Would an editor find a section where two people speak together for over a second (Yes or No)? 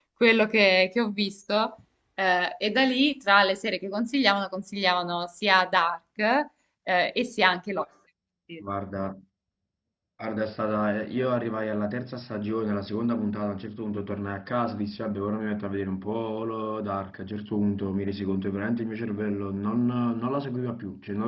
No